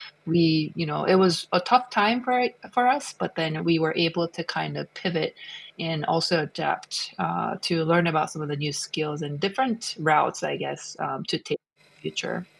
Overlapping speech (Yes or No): No